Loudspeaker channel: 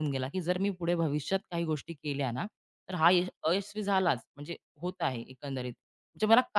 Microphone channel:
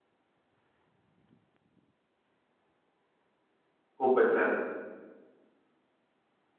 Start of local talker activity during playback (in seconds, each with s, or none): 4.0 s